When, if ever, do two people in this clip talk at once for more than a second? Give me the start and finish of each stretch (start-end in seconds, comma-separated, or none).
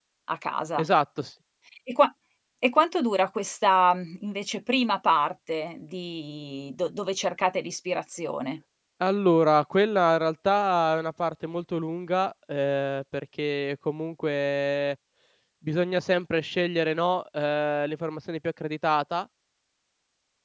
none